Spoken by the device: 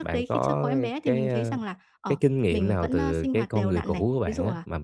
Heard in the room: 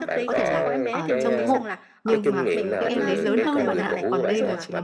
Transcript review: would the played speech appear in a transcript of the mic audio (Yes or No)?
Yes